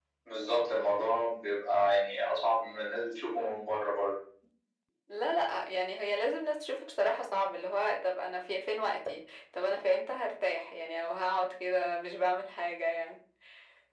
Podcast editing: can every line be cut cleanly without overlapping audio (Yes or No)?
Yes